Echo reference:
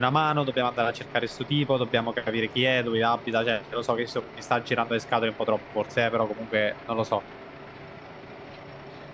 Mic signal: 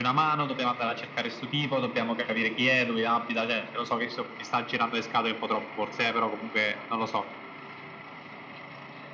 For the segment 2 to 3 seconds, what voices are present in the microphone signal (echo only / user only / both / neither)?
echo only